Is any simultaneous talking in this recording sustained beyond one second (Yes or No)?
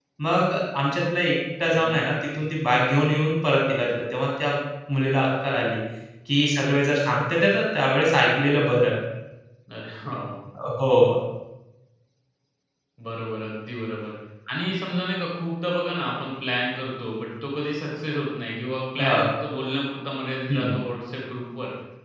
No